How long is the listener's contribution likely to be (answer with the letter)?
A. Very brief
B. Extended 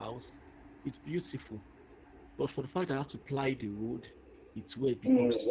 B